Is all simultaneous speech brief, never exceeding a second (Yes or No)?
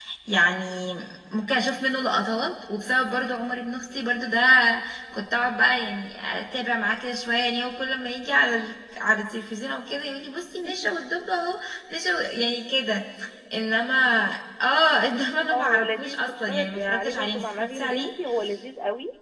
No